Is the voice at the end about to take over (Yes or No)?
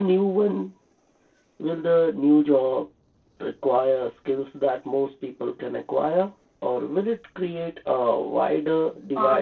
Yes